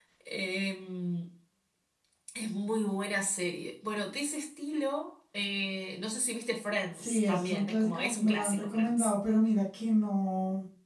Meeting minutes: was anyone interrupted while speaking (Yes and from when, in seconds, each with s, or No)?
Yes, from 6.9 s